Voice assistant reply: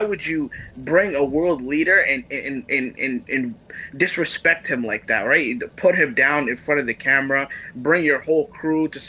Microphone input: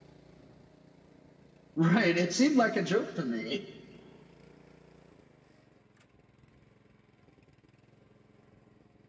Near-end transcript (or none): right. It seemed like a joke to me.